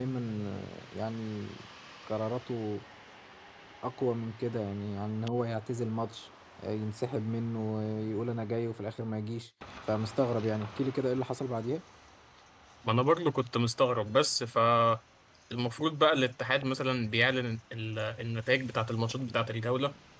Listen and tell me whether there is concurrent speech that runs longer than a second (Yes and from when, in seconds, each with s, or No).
No